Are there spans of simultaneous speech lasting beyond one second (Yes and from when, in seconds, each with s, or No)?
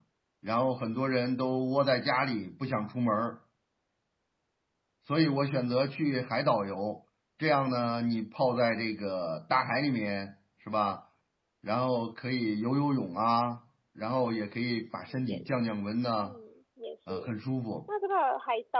No